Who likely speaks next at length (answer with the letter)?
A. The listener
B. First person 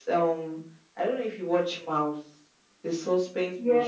A